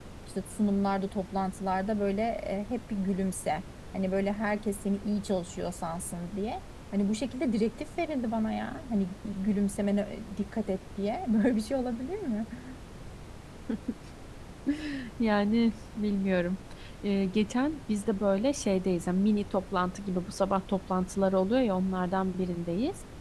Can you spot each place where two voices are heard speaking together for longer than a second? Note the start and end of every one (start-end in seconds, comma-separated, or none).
none